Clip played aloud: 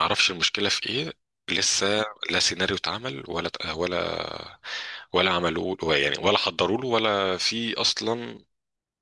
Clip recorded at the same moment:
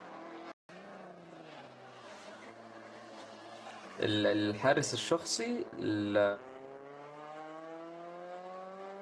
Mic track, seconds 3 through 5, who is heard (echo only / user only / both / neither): user only